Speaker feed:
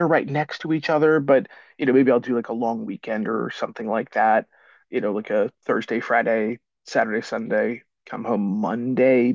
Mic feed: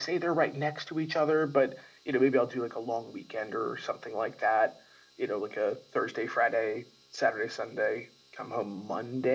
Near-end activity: none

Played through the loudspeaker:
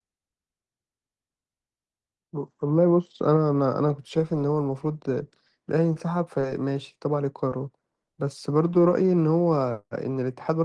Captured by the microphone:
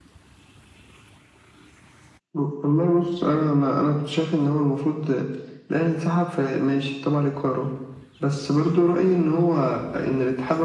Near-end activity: none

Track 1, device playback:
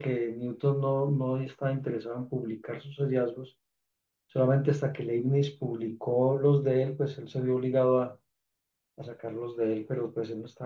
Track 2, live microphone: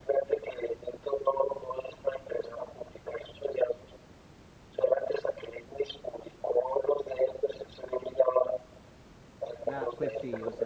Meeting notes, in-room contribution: present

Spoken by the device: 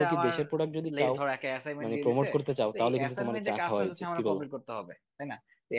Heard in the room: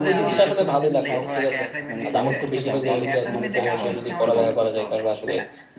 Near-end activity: present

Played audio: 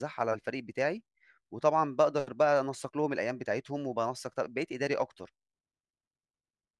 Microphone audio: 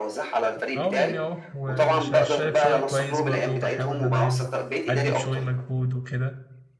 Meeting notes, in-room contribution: present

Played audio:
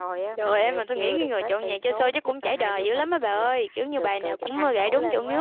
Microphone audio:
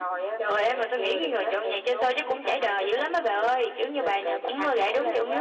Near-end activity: none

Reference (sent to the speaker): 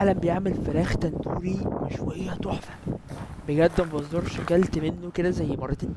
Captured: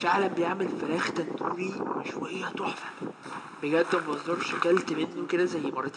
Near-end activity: present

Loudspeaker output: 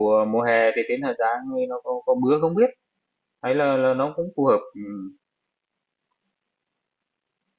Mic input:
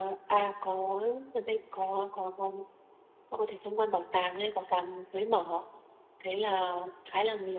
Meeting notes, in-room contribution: present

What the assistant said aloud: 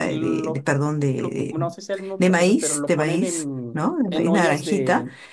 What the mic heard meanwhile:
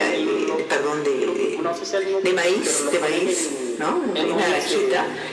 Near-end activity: none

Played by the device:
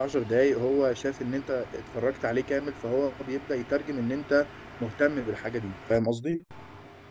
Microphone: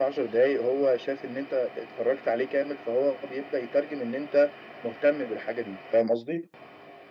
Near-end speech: none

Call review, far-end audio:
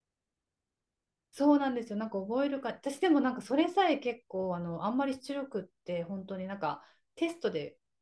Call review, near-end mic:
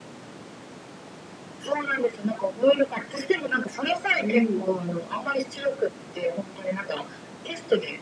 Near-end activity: present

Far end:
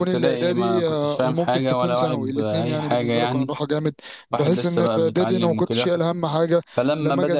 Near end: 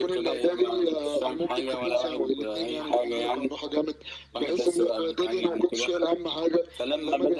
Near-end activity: none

